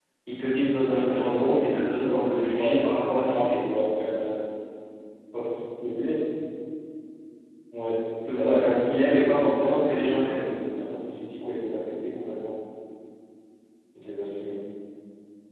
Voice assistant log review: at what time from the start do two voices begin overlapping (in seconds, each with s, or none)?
0.8 s